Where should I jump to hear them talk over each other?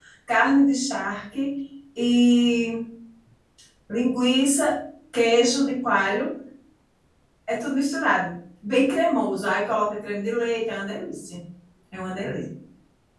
none

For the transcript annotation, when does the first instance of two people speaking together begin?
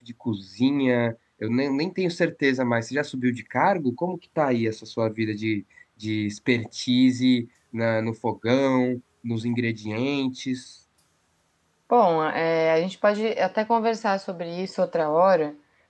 none

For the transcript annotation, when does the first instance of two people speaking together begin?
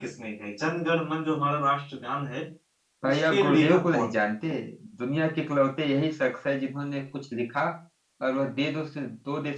3.1 s

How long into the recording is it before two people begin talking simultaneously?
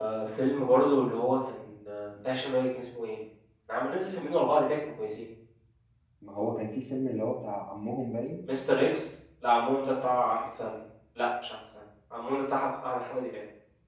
none

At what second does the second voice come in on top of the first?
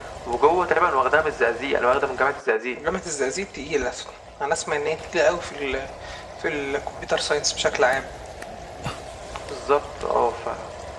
none

